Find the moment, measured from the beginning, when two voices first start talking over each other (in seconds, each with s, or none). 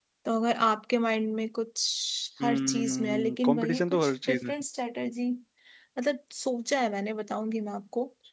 2.4 s